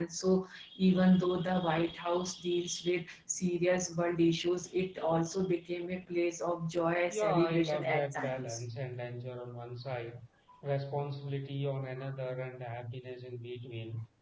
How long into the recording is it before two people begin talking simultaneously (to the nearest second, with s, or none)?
7 s